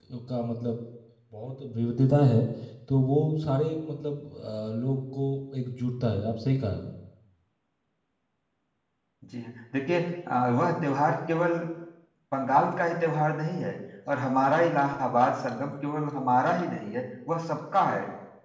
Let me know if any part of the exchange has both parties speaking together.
No

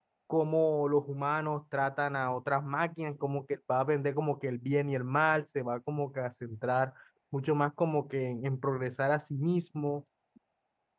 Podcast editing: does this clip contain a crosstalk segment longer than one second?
No

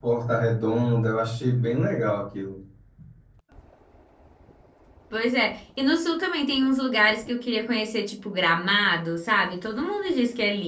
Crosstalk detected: No

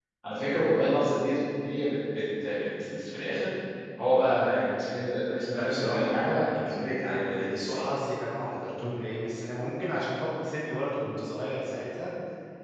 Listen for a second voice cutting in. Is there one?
Yes, from 5.5 s

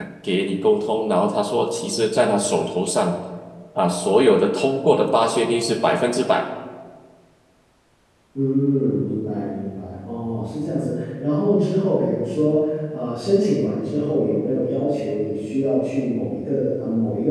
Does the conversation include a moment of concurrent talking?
No

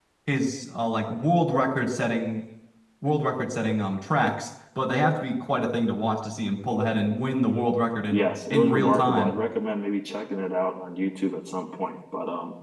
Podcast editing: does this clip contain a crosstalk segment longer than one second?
Yes, from 8.1 s

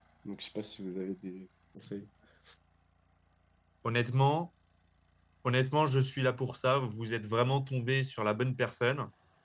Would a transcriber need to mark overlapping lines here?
No

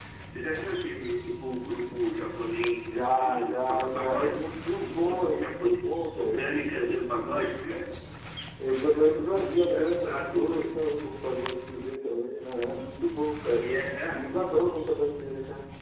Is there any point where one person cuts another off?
Yes, from 2.8 s

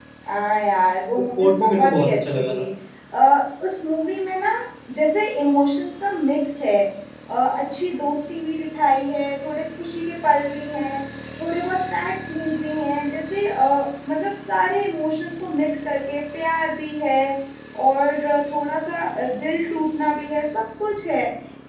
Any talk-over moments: Yes, from 1.4 s

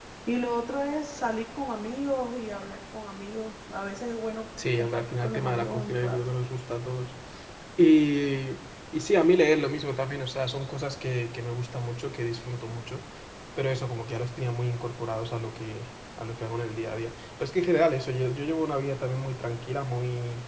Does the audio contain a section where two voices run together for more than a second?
Yes, from 4.6 s

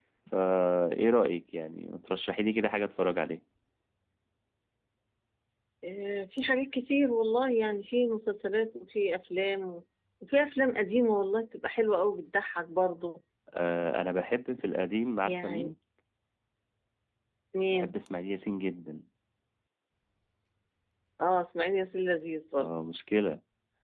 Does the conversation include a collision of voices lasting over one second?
No

